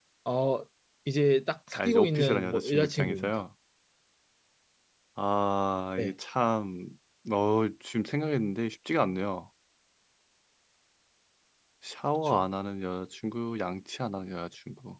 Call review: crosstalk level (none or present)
present